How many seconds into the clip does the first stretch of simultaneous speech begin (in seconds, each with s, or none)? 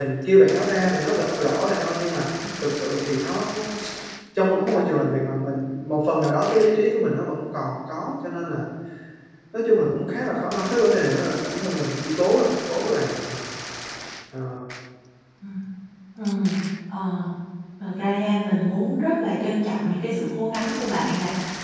none